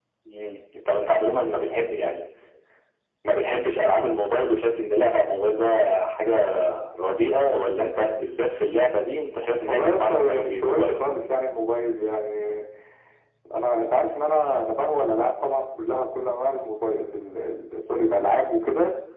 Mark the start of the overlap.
9.7 s

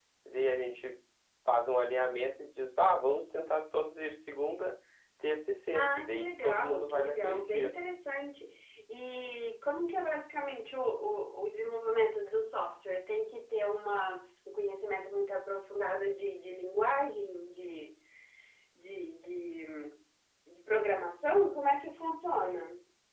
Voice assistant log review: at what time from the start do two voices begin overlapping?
5.7 s

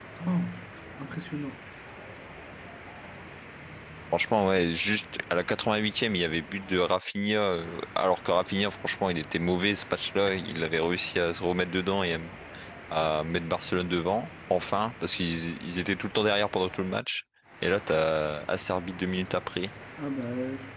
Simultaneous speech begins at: none

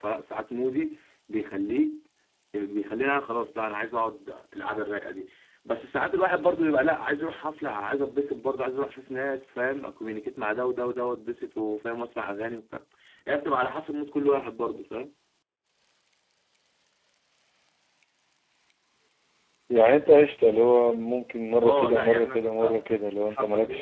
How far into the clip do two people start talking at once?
21.6 s

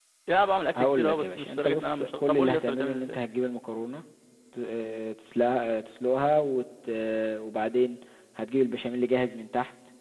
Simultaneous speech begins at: 0.8 s

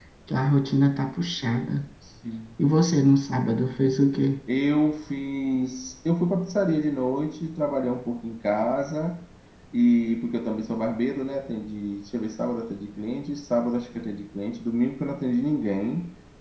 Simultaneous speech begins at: none

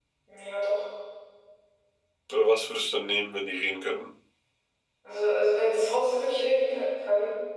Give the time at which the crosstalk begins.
none

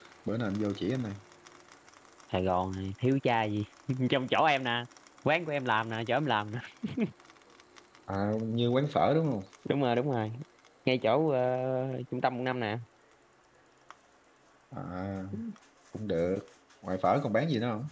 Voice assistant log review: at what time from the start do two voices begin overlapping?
none

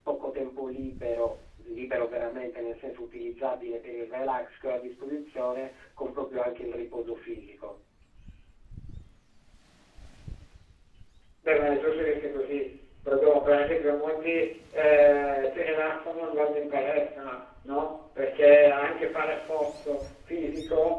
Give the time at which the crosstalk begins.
none

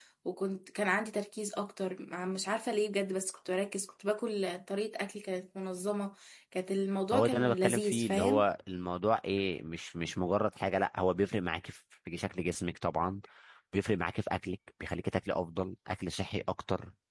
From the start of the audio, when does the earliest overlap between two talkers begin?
7.1 s

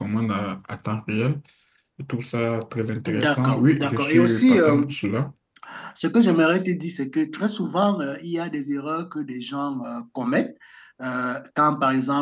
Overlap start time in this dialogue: 3.1 s

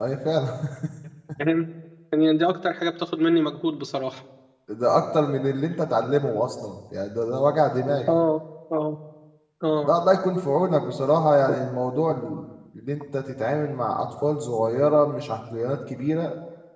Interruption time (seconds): none

